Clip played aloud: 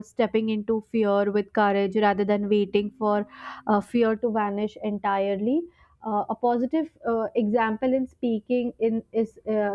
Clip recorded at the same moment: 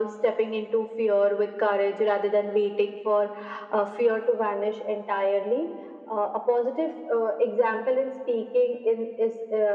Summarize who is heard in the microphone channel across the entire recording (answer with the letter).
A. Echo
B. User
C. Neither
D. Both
A